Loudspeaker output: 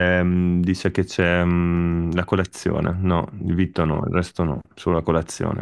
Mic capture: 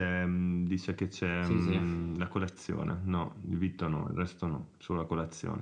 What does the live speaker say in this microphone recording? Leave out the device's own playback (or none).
Sì, sì,